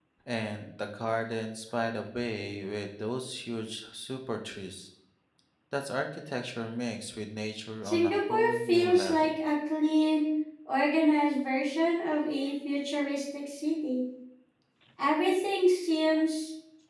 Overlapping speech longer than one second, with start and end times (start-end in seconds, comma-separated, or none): 7.8-9.4